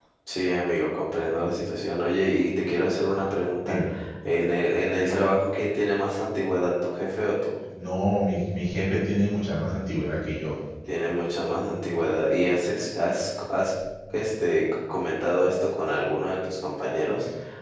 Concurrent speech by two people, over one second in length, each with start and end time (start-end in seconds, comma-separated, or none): none